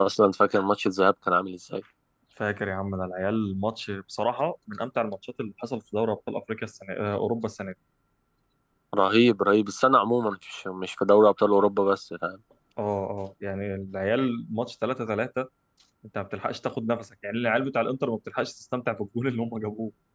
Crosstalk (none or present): none